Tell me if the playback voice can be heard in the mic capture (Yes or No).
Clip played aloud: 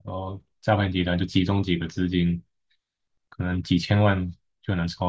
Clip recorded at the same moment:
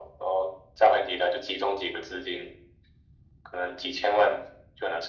Yes